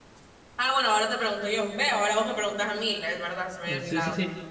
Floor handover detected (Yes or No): Yes